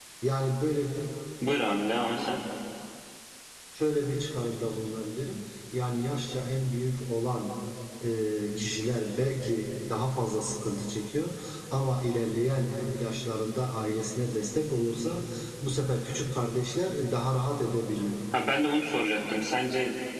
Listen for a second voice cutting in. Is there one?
No

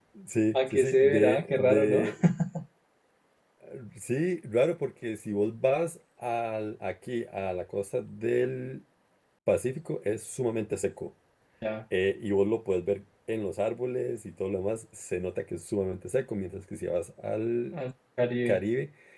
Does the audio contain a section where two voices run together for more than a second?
Yes, from 0.5 s

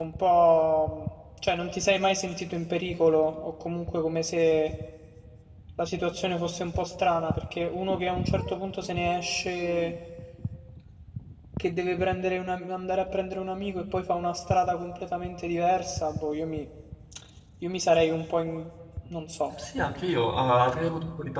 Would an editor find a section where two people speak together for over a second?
No

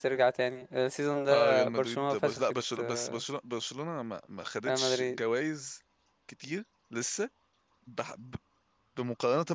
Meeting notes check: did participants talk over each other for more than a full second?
Yes, from 1.3 s

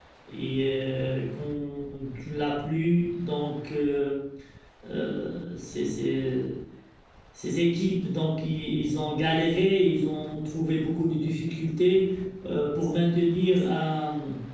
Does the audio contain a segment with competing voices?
No

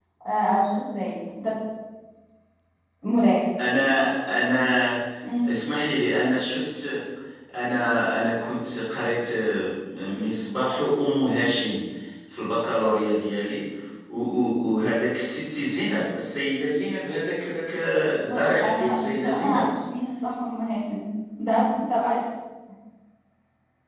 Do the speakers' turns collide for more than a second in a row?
Yes, from 18.3 s

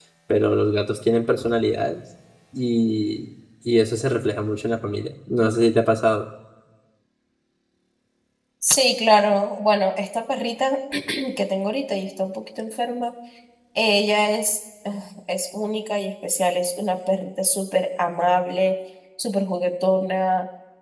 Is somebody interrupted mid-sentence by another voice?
No

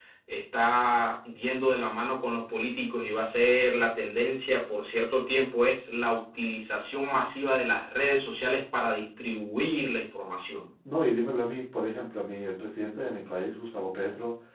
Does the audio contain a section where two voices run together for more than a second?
No

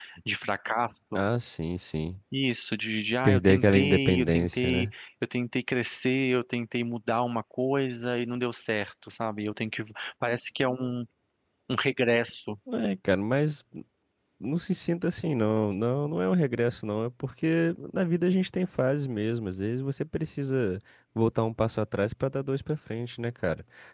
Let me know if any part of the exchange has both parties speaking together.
Yes, from 3.2 s

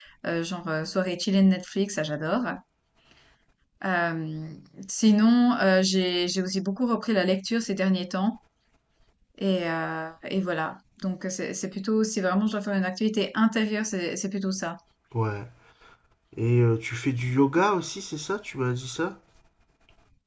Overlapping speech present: No

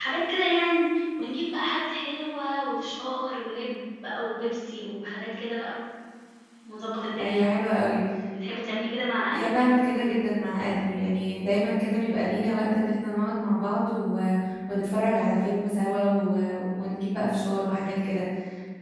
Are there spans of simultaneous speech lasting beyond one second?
No

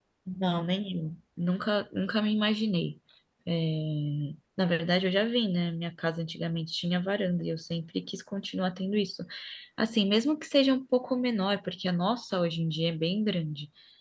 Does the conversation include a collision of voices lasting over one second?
No

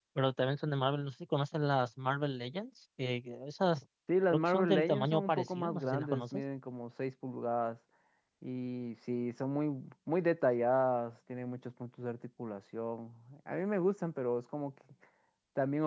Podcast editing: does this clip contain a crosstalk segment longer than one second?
Yes, from 4.3 s

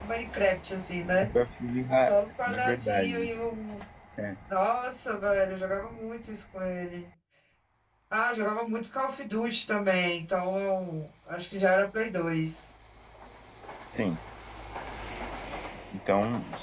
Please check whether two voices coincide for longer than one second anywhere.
Yes, from 2.0 s

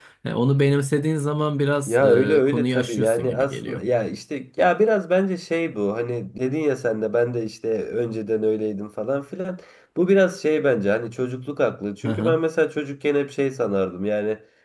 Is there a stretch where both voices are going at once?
Yes, from 1.9 s

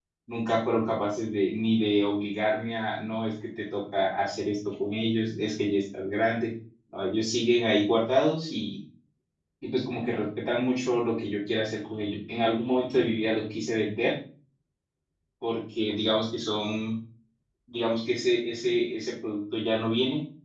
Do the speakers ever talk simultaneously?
No

